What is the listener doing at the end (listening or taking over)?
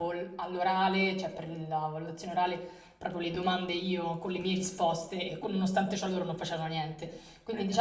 listening